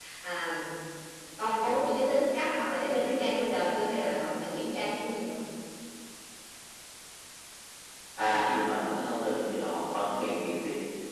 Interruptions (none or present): none